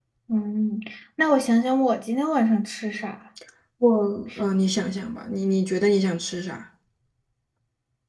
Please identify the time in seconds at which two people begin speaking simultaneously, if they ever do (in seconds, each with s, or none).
none